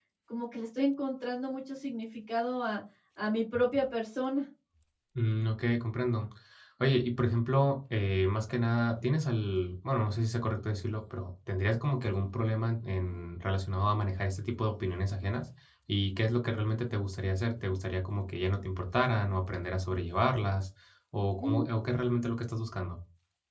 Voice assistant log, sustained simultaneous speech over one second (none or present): none